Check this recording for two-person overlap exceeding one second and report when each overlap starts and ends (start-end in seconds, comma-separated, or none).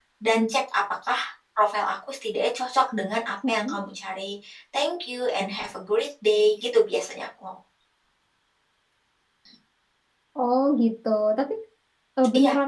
none